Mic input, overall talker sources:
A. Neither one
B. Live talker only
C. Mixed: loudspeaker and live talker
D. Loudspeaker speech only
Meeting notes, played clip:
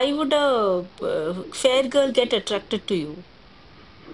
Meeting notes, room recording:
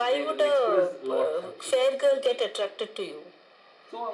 C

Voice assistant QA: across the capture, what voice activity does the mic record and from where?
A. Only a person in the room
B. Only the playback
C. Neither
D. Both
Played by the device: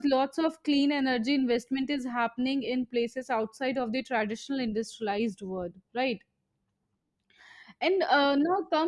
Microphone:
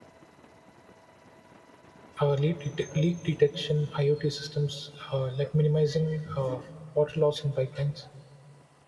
A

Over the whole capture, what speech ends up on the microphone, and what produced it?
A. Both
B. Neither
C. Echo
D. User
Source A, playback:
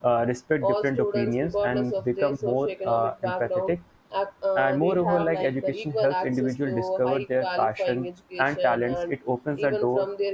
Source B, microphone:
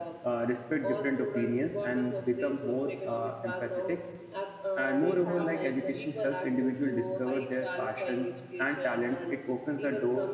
C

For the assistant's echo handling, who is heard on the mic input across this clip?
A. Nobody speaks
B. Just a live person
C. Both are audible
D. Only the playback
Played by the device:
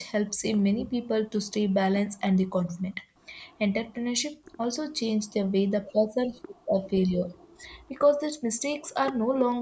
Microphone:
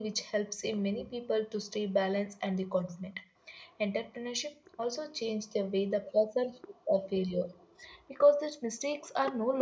D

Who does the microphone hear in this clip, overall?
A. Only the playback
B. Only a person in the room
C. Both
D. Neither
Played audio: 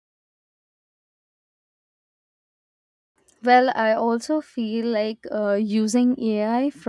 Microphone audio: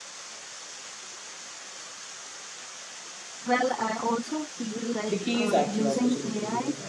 C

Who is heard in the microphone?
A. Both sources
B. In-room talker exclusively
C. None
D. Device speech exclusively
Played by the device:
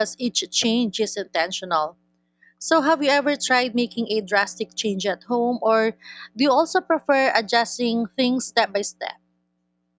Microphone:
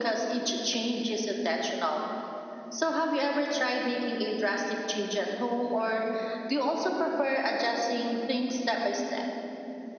D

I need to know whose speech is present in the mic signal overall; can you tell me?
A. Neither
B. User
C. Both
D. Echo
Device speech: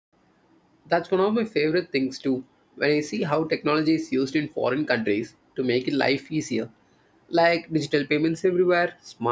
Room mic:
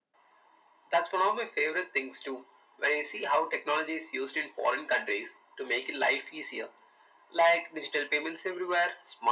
D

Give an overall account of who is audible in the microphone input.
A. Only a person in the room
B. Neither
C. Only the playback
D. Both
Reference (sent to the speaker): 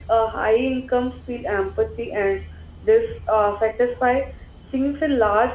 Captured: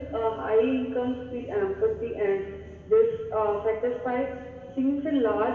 C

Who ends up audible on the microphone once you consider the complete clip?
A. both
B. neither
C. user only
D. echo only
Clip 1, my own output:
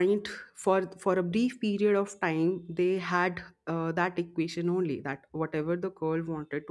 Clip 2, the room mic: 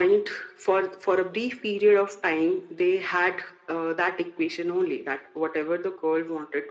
D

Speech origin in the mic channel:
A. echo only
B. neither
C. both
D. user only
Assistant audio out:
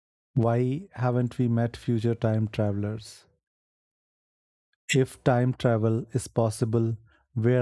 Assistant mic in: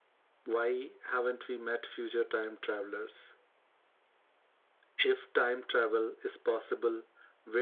A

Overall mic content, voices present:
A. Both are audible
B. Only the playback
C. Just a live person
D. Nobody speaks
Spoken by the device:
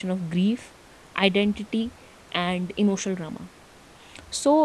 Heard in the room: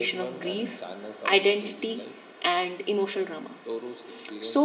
A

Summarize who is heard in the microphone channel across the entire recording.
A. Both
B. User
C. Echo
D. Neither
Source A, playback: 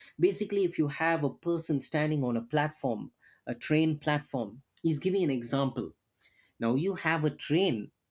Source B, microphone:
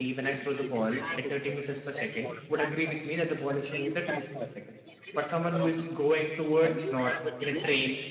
A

